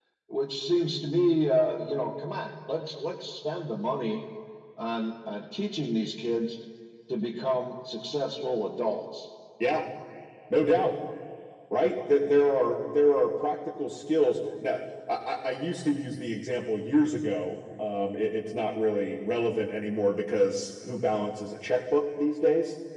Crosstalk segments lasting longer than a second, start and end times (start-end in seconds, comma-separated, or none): none